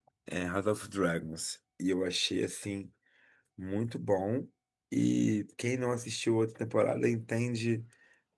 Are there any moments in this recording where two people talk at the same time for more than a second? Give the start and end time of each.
none

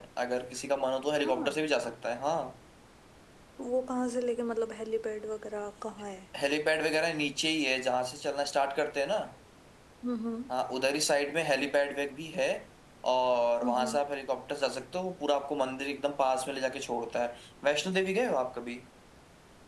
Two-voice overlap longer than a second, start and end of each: none

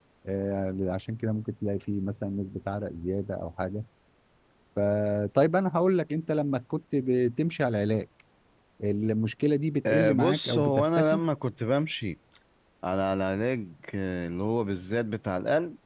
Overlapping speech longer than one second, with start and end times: 9.9-11.2

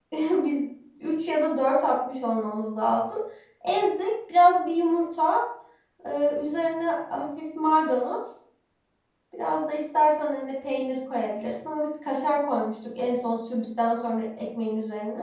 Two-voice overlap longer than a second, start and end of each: none

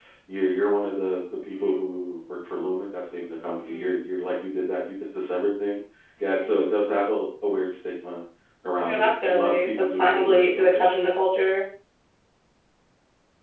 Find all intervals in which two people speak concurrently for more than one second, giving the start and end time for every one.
8.8-10.9

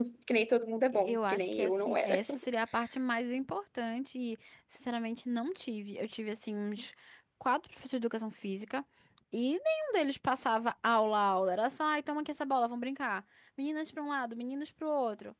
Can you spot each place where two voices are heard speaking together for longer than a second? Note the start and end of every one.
0.9-2.2

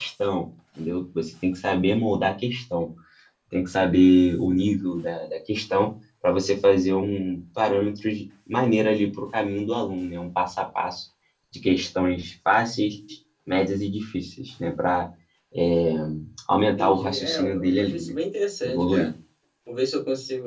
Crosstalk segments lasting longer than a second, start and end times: 16.8-18.1

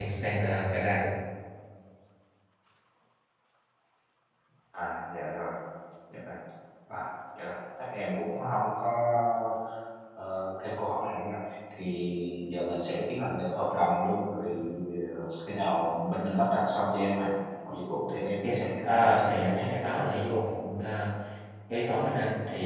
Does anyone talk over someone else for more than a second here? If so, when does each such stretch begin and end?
18.4-19.7

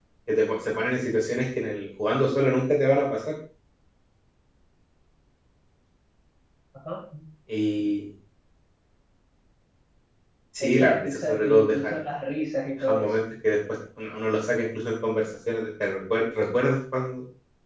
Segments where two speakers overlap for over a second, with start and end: 10.6-12.0

